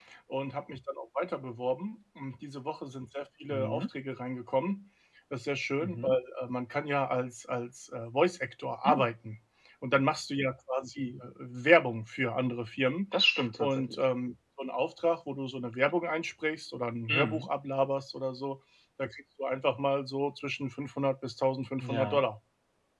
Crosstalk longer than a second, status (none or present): none